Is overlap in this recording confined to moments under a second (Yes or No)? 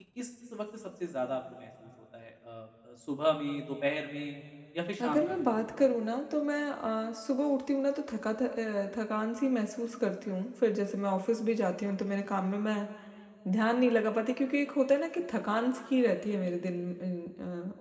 Yes